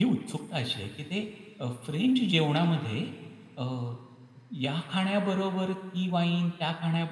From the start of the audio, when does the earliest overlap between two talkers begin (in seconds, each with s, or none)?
none